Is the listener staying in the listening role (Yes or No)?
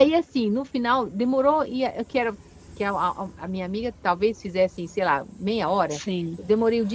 Yes